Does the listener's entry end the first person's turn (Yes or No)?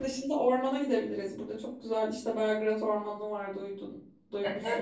Yes